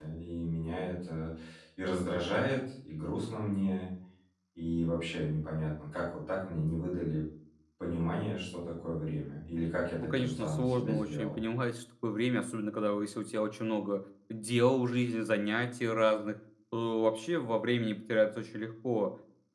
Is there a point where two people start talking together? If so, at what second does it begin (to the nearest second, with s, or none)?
10 s